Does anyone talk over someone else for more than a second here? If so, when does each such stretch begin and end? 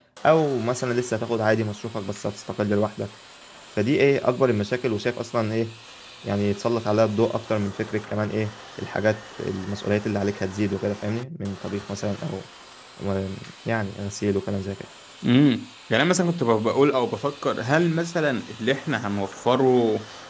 none

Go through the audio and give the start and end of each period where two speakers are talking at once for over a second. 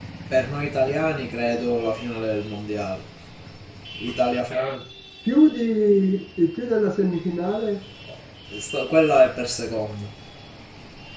none

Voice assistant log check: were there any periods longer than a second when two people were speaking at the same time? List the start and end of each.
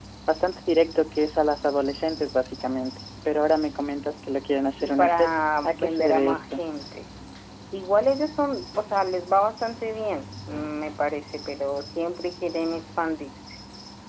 4.8-6.6

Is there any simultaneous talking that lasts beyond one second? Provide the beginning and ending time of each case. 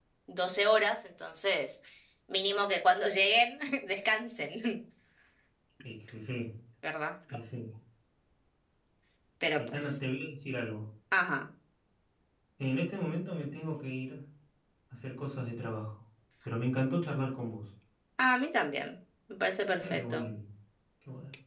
none

